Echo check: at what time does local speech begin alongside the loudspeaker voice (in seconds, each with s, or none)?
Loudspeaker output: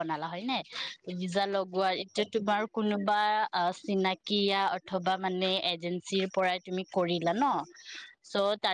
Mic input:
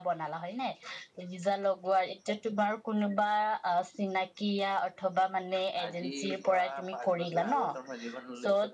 5.8 s